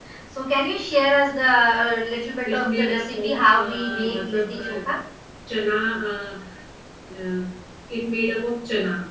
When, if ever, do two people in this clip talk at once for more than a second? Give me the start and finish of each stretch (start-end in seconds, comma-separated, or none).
2.4-4.8